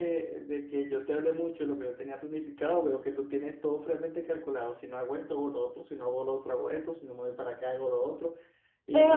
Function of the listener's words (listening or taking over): taking over